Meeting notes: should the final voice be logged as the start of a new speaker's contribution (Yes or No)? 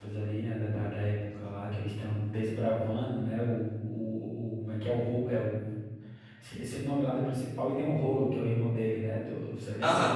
Yes